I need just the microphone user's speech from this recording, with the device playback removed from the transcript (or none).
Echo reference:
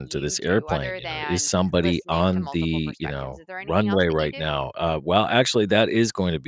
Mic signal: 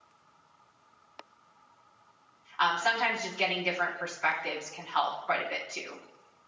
Um, sometimes just getting different perspectives can help quite a bit too.